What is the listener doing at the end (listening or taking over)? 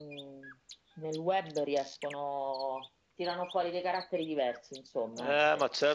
taking over